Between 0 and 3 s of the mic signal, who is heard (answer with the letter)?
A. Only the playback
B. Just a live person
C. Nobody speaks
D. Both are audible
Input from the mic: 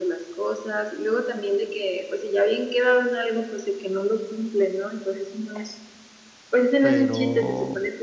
A